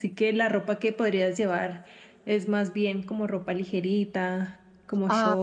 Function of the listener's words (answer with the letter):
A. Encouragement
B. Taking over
B